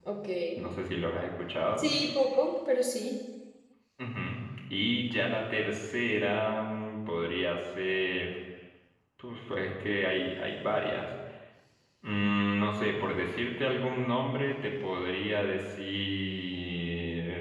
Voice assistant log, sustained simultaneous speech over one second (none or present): none